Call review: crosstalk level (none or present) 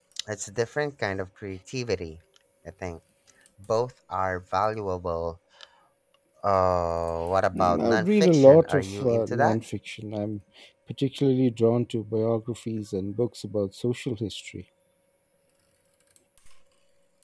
present